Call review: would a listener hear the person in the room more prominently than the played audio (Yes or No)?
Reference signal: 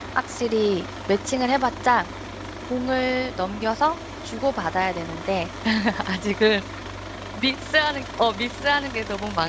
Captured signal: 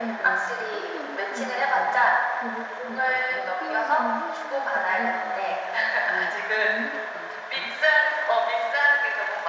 No